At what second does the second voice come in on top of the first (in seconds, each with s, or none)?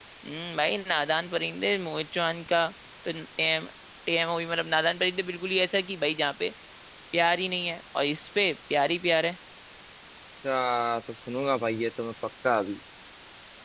none